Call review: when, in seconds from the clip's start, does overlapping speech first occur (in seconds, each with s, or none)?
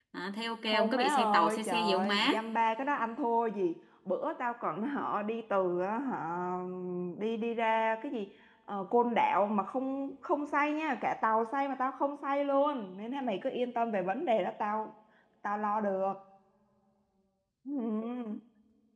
0.7 s